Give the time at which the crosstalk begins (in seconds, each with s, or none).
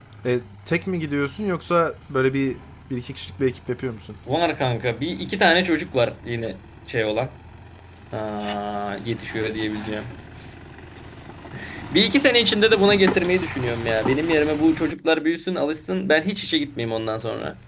none